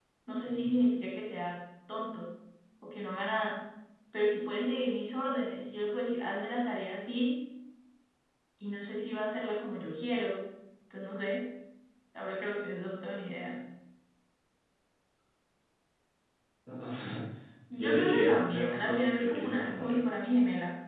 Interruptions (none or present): present